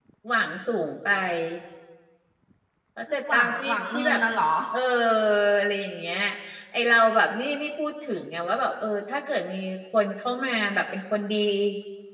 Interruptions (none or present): present